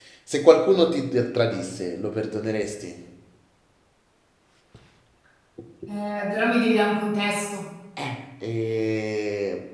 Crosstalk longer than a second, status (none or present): none